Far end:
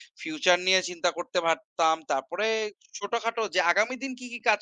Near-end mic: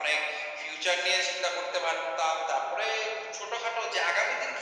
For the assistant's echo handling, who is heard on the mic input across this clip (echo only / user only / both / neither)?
echo only